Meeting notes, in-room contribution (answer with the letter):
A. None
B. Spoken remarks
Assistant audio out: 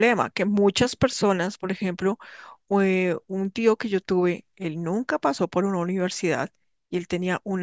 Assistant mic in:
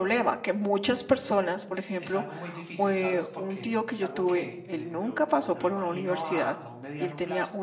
B